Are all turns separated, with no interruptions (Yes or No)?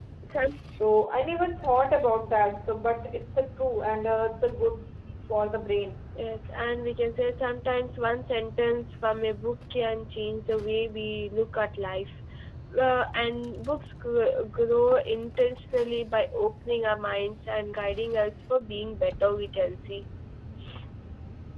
Yes